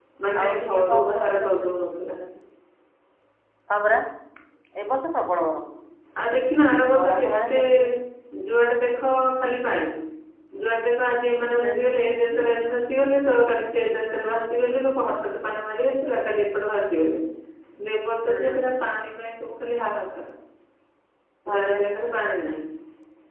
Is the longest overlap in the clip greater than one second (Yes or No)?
Yes